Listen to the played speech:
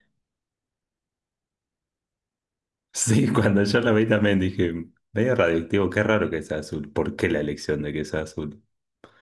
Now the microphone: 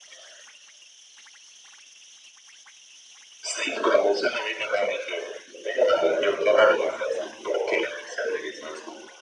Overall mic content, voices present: echo only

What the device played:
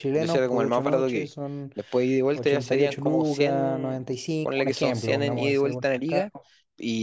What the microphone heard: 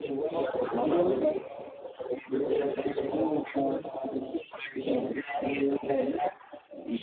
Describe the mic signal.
both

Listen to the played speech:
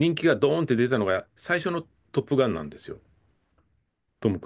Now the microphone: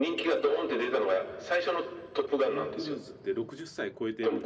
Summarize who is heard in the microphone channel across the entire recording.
both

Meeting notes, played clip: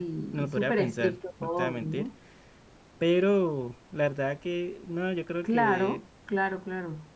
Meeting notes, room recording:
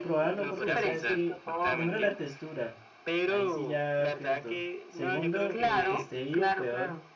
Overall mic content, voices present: both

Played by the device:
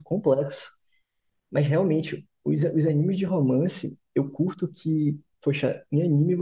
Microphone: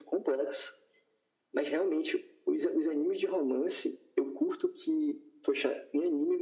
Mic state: echo only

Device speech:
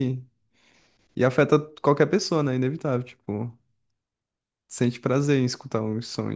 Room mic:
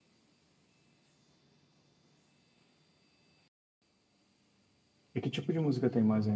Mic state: user only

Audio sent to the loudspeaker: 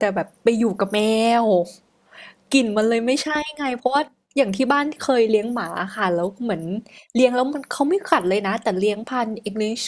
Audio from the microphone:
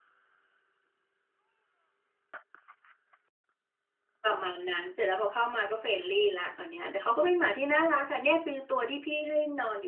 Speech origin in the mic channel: user only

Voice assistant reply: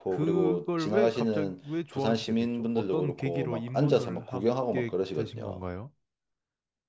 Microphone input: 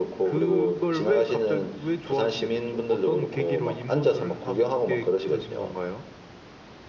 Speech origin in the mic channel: echo only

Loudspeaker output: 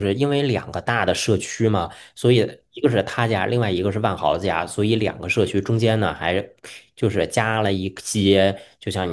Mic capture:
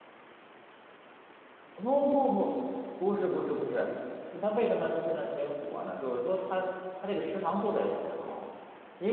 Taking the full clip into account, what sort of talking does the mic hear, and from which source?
user only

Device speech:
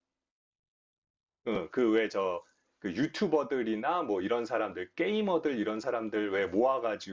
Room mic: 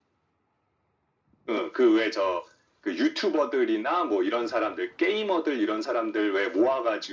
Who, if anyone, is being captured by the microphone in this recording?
echo only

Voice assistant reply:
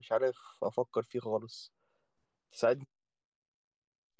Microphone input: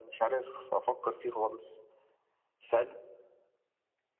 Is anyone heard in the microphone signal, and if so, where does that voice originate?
echo only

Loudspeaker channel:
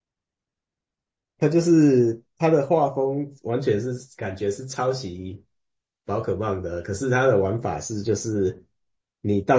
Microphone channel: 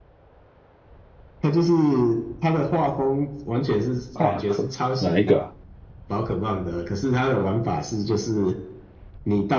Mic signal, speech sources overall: both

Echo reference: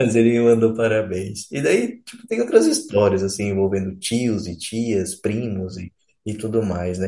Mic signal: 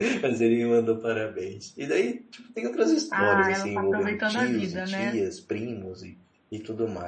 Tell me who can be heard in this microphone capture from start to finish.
both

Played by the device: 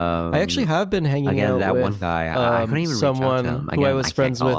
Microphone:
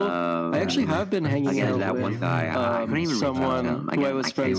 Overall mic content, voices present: both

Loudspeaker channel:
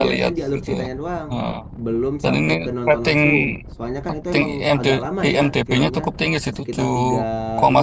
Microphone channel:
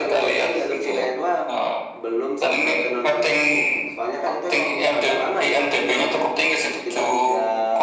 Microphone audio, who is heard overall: echo only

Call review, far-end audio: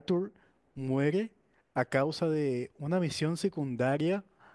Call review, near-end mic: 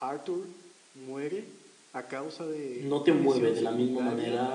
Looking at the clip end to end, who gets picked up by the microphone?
both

